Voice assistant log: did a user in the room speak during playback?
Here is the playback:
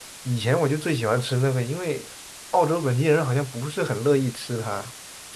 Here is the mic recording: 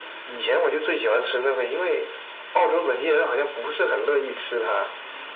No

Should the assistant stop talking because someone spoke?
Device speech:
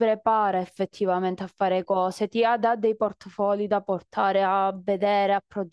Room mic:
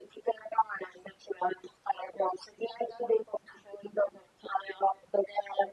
No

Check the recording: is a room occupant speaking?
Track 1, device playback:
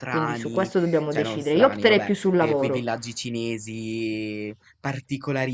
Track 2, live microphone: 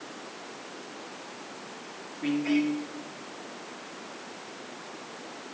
Yes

